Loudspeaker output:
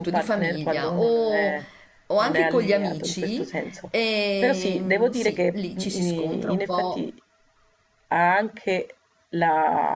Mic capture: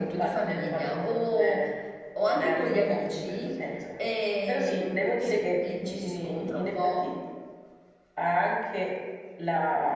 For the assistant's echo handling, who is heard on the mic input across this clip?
echo only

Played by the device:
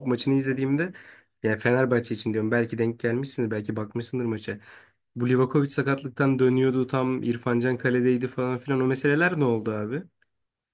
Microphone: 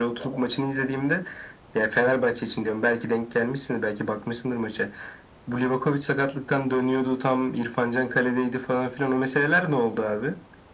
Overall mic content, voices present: echo only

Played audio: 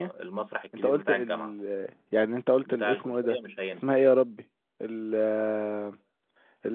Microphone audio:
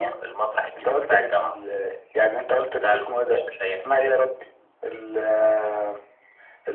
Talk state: echo only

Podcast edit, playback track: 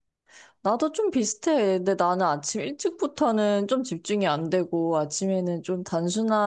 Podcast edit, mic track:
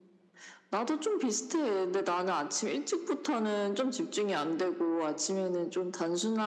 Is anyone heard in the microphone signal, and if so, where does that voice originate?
echo only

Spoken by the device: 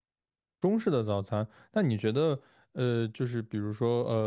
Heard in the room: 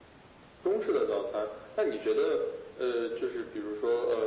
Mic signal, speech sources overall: echo only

